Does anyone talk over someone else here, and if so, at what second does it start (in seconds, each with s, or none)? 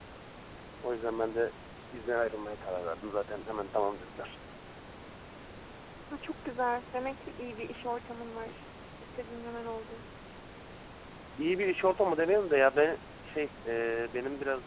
none